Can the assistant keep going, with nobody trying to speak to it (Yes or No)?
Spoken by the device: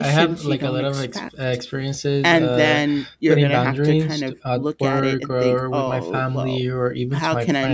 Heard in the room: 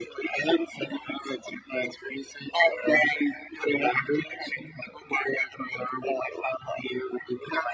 Yes